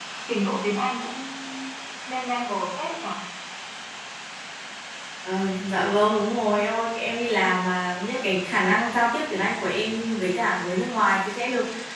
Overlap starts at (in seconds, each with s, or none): none